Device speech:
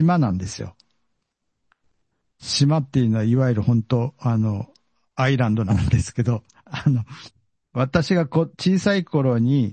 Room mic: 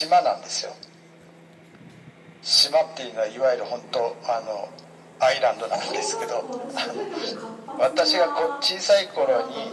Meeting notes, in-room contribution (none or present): present